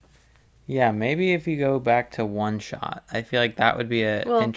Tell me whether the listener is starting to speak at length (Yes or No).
No